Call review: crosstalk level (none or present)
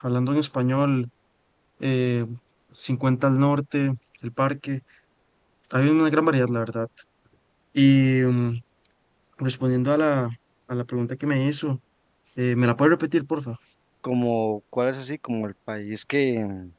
none